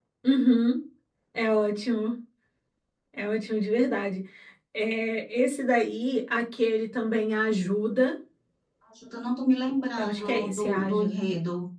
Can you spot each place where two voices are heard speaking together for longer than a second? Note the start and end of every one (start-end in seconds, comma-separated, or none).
10.0-11.2